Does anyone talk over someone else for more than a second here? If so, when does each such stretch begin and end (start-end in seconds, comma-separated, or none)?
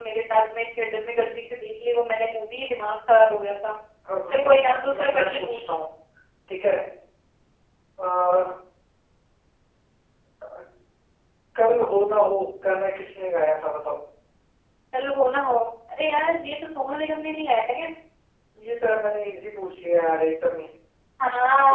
4.3-5.7